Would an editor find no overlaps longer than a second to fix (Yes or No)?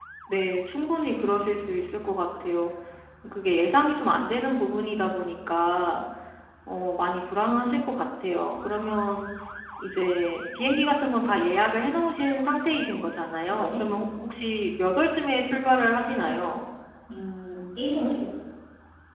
Yes